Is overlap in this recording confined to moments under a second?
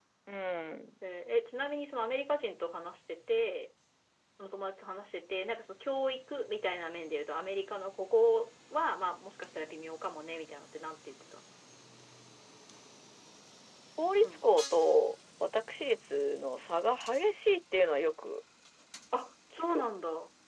Yes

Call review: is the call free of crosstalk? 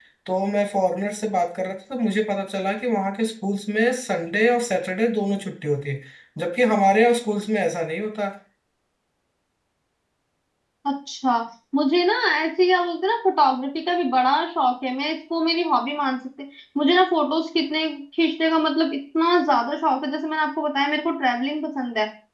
Yes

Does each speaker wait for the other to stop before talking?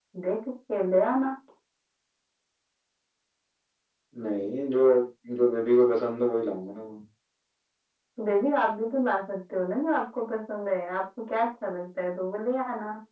Yes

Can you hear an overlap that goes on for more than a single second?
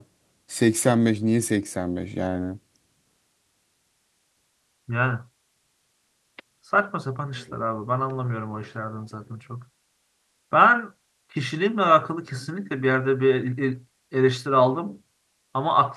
No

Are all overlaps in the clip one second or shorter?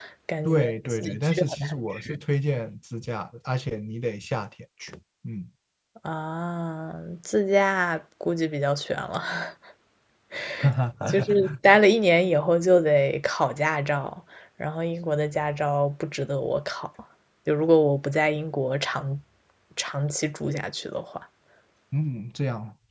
No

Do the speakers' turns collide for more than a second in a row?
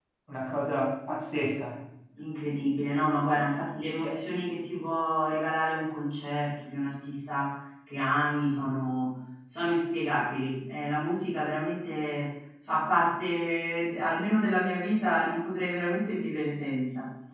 No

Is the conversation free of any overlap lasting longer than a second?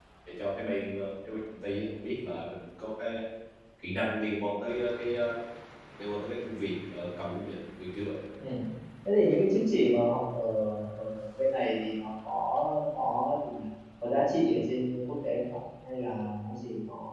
Yes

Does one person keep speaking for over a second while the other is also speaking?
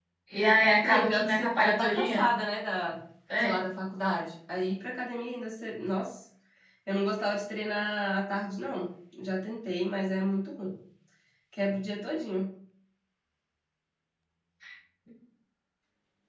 Yes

